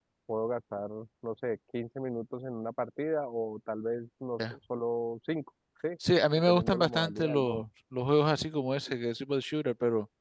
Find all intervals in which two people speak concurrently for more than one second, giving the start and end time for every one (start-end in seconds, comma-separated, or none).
6.4-7.6